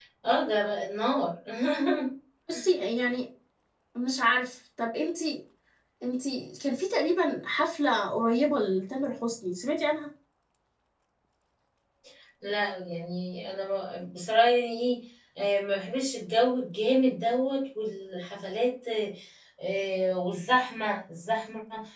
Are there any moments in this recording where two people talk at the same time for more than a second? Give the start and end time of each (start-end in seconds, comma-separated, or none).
none